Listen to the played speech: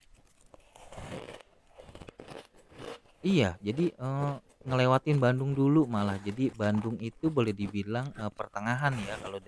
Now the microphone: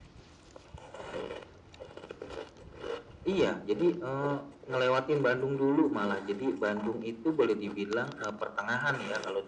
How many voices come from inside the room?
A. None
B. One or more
A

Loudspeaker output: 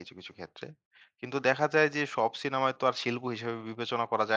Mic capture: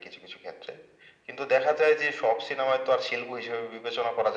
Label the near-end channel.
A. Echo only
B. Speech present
A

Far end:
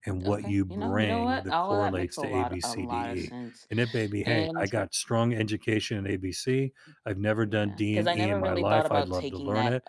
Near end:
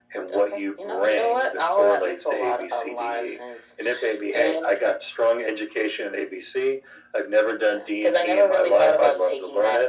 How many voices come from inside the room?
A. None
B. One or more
A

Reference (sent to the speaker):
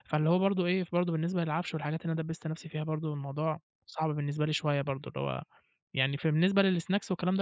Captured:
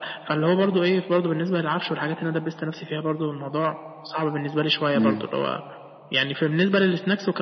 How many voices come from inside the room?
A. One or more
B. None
A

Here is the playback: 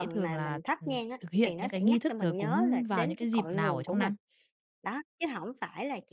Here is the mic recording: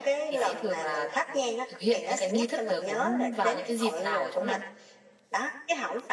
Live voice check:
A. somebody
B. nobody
B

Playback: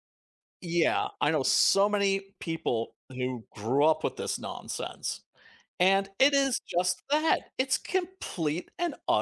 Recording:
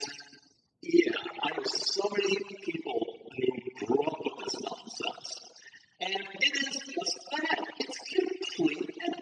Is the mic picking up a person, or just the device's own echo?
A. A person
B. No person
B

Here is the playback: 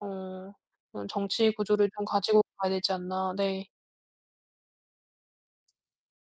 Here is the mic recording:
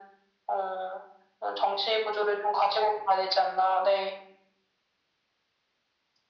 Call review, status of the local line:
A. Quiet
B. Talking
A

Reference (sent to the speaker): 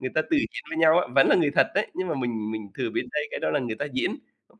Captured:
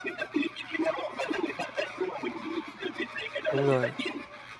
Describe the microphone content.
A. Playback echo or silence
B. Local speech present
B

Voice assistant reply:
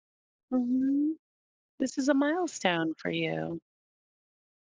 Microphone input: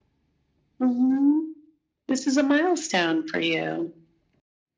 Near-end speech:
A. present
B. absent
B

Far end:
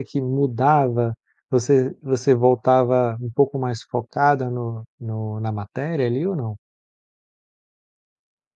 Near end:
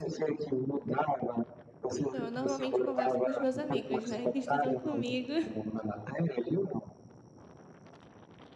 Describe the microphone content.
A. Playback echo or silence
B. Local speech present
B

